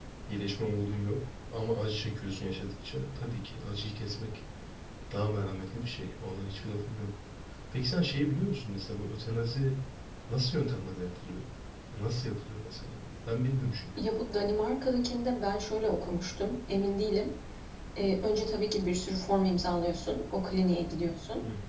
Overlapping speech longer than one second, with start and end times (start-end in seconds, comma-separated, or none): none